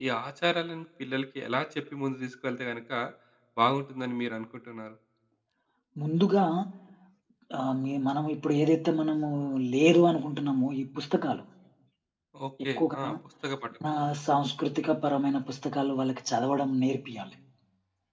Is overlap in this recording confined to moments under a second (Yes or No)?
Yes